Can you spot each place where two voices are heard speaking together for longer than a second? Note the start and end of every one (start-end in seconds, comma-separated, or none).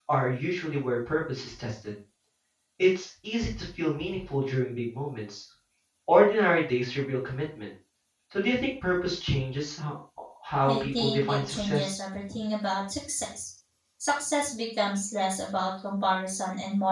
10.7-12.0